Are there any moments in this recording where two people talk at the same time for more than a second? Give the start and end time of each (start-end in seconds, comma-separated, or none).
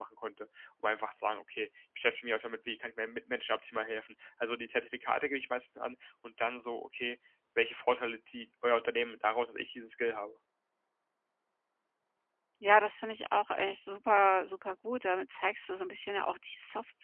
none